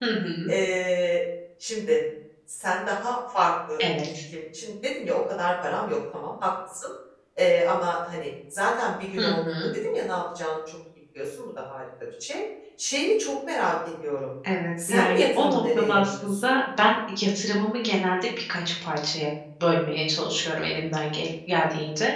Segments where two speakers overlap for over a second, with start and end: 14.9-16.5

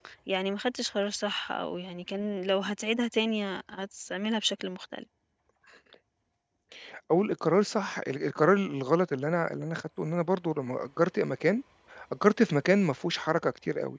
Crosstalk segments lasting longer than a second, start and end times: none

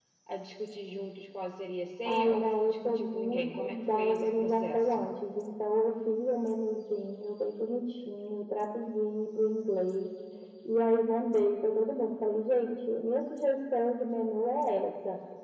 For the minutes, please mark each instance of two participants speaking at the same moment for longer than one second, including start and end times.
2.0-5.1

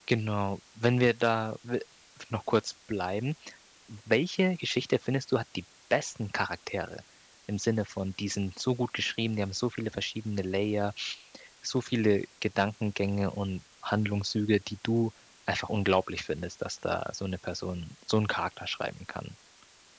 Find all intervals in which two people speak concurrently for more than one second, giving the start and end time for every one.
none

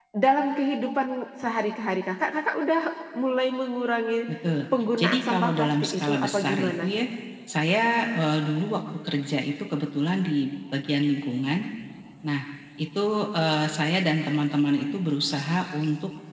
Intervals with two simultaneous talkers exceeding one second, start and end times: 5.0-6.8

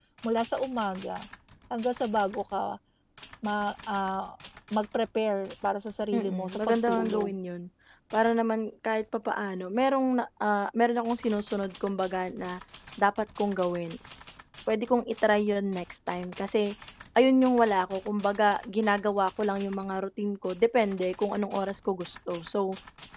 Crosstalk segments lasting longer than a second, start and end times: 6.1-7.3

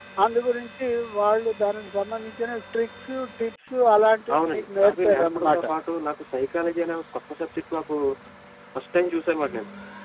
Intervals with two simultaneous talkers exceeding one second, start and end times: 4.3-5.7

